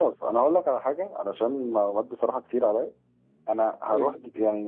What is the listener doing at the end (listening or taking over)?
listening